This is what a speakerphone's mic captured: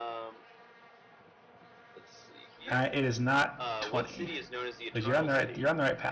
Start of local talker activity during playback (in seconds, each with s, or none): 2.7 s